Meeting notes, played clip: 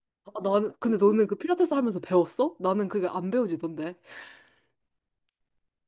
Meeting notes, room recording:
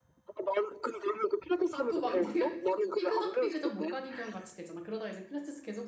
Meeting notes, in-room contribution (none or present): present